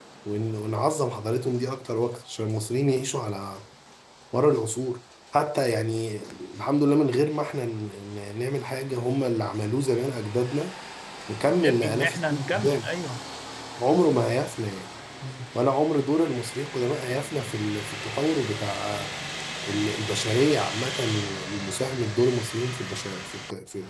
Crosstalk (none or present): present